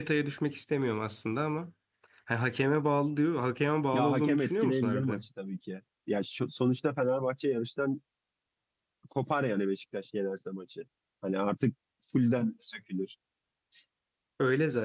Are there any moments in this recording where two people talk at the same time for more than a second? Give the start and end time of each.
3.9-5.2

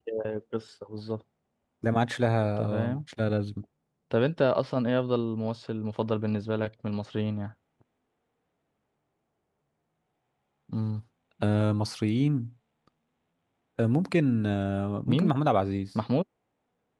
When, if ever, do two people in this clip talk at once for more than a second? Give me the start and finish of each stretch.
none

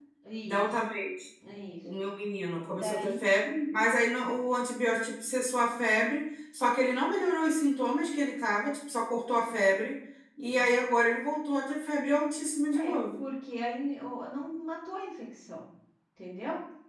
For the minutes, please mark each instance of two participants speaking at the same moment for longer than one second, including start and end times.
none

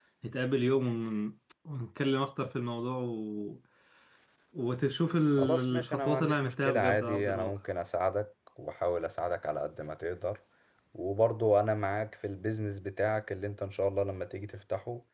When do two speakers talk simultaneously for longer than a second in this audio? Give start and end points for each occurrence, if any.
5.4-7.5

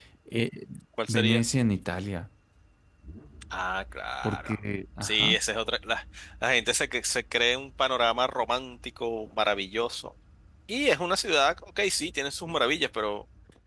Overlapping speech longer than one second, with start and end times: none

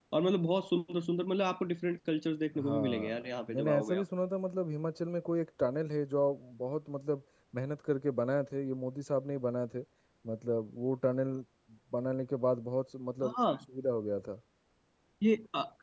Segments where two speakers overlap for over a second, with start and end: 2.6-4.0

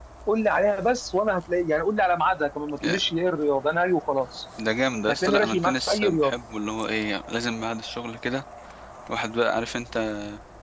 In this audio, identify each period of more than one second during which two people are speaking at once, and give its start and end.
5.1-6.3

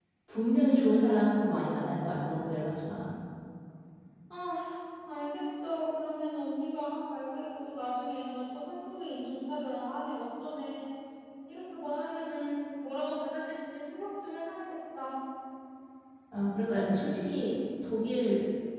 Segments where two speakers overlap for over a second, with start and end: none

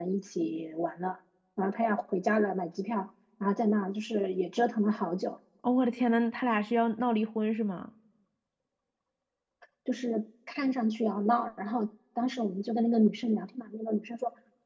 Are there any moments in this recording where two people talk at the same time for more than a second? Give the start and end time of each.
none

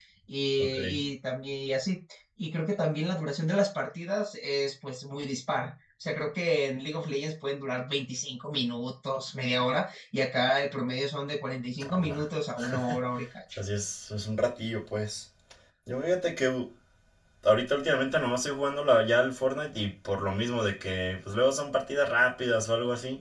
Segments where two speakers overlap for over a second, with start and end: none

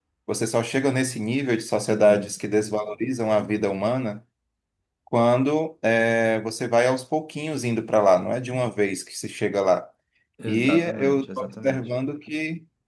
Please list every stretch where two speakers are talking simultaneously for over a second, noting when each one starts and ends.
10.5-11.9

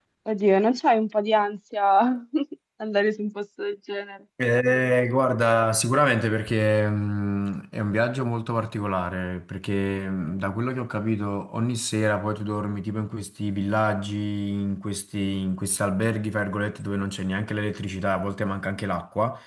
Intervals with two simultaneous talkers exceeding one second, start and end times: none

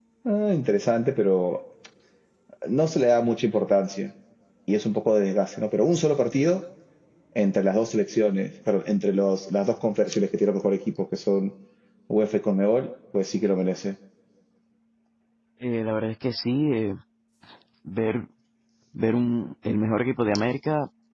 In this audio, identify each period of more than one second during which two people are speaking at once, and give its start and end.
none

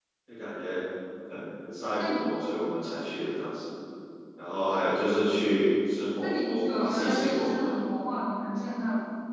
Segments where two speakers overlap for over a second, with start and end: 6.2-7.8

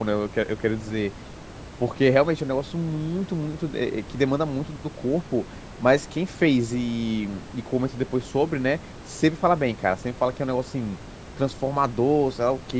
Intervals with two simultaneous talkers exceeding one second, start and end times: none

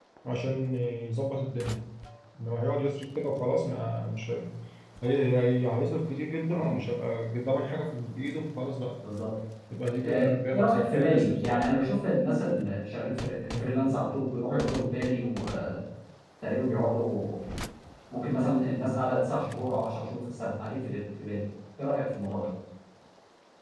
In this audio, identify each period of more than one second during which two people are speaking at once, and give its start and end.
10.0-11.7

